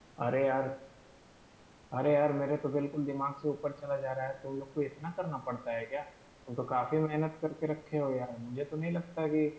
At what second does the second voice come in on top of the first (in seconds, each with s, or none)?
none